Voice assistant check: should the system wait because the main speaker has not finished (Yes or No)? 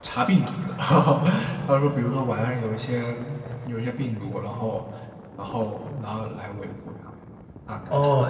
No